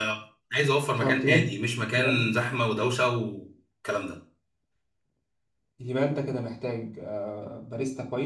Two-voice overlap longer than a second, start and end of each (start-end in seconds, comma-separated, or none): none